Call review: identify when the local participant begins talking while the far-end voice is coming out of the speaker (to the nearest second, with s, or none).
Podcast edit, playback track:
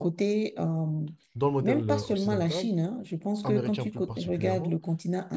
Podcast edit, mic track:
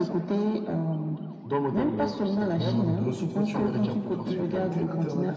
3 s